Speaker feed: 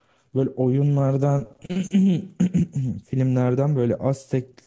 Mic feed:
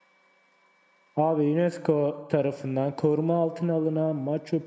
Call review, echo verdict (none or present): none